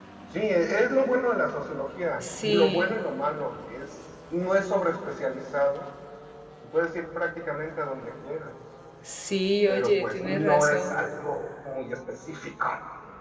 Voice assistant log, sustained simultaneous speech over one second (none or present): present